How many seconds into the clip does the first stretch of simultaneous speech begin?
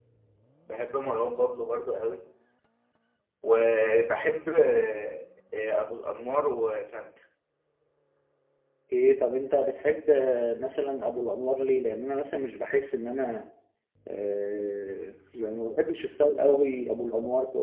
none

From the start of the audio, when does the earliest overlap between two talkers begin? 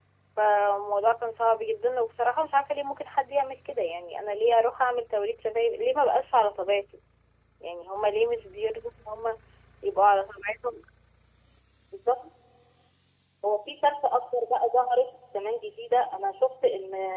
none

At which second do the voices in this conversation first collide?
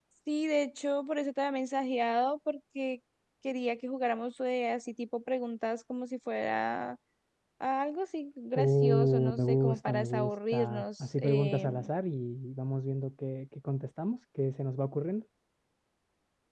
8.5 s

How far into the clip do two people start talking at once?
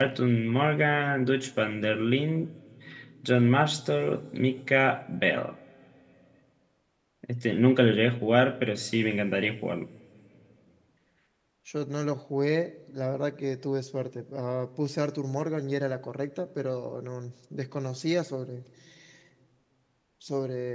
none

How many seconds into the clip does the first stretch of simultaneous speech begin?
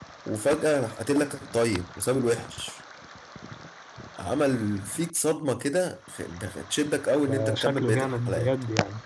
7.3 s

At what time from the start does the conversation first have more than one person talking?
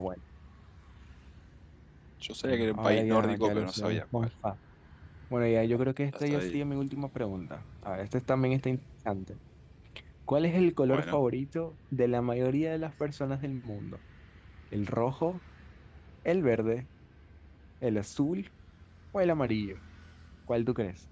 2.4 s

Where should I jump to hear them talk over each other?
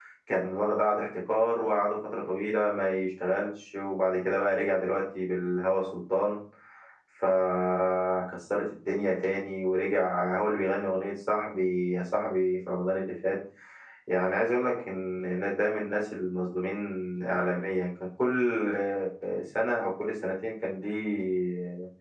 none

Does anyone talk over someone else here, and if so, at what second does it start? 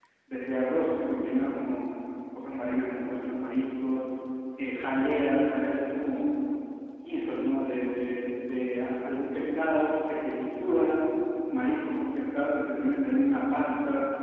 none

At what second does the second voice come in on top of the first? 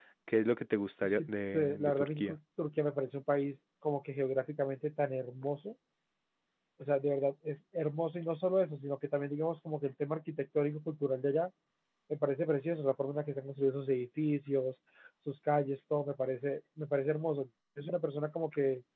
1.0 s

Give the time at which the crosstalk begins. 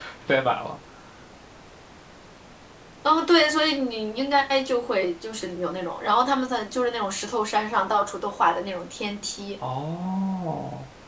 none

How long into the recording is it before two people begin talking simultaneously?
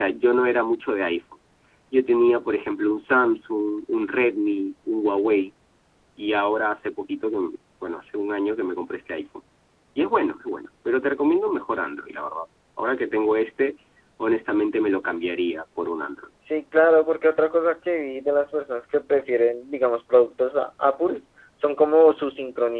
none

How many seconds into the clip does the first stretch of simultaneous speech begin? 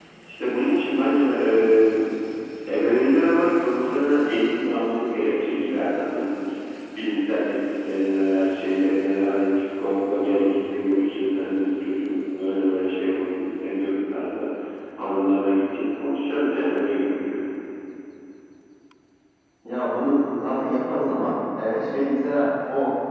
none

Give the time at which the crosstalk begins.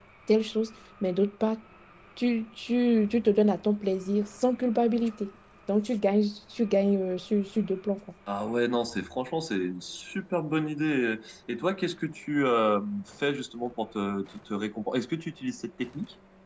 none

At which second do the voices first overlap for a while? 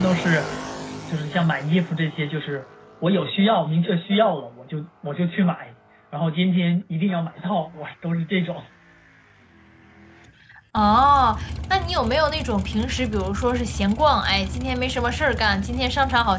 none

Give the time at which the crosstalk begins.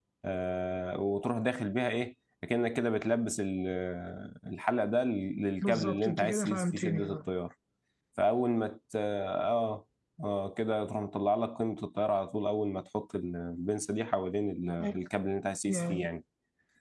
5.6 s

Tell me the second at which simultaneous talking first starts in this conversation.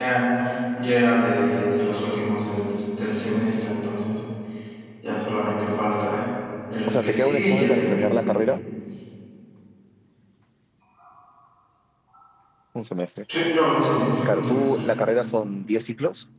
6.9 s

